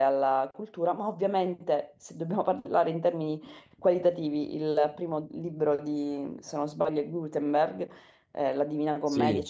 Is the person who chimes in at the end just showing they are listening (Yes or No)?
Yes